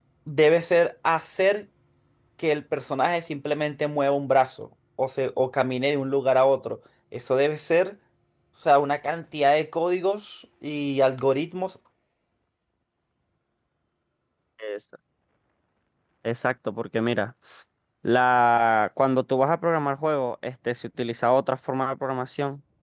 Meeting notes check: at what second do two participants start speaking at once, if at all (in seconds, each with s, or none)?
none